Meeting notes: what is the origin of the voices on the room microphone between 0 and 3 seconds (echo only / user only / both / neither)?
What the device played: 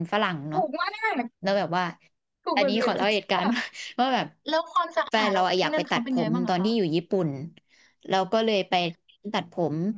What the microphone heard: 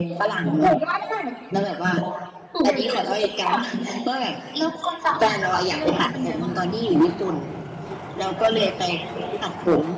echo only